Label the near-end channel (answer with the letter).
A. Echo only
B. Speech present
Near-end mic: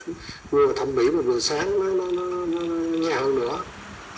A